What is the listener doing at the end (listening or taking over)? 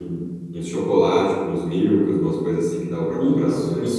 taking over